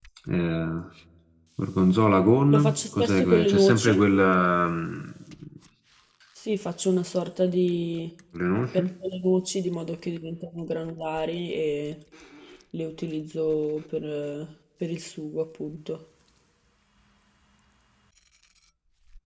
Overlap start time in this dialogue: 2.5 s

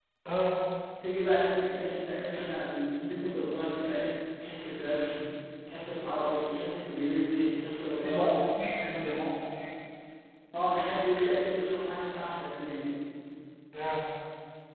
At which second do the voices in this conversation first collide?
8.0 s

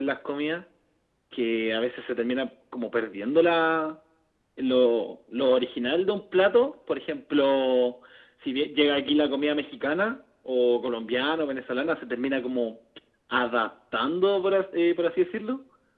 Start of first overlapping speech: none

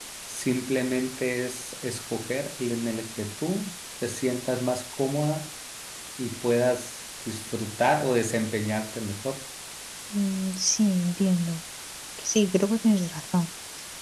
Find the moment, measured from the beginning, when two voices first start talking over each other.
none

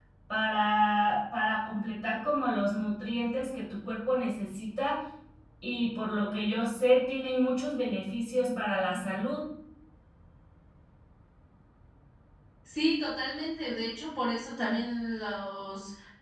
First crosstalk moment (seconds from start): none

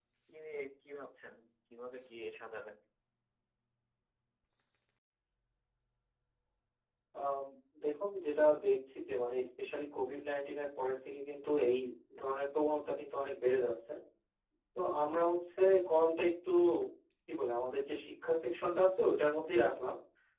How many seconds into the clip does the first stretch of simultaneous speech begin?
none

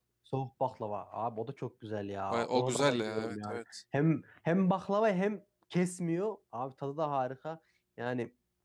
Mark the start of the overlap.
2.3 s

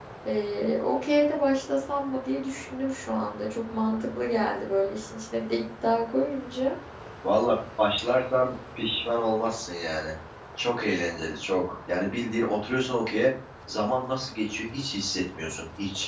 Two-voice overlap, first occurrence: none

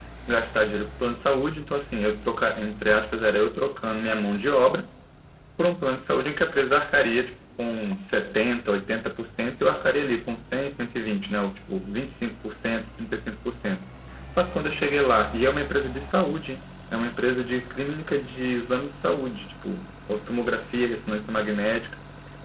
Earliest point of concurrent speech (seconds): none

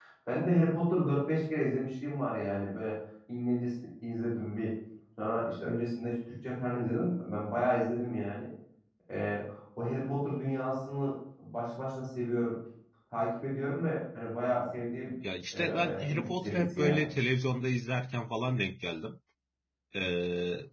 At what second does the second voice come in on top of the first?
15.5 s

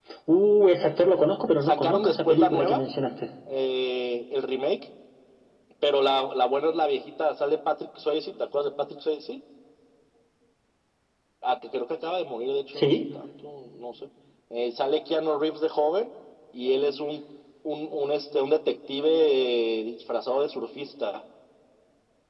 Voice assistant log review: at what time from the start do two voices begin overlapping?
1.6 s

